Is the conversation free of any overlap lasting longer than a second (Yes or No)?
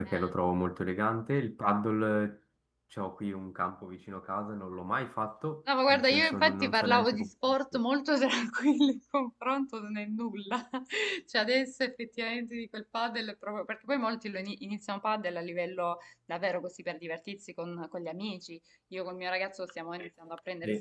No